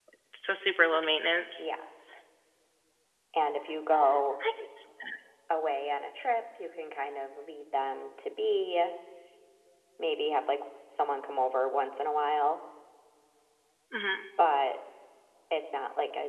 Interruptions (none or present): none